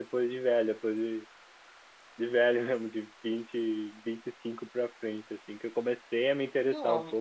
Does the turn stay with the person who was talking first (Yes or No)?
Yes